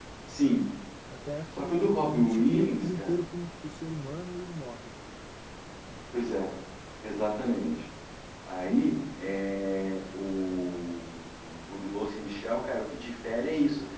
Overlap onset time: 1.6 s

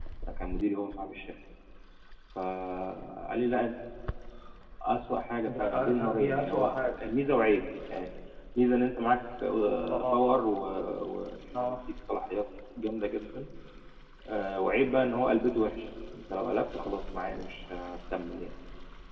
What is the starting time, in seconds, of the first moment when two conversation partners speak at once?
5.4 s

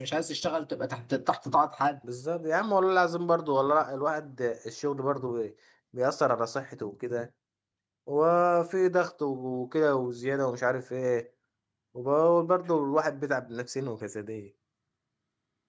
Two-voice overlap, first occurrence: none

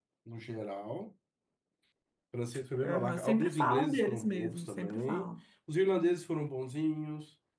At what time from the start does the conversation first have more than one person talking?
2.8 s

